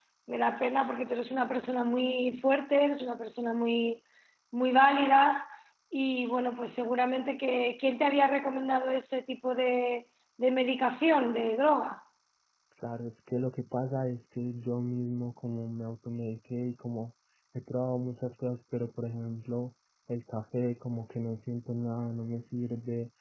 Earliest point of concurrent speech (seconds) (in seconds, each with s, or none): none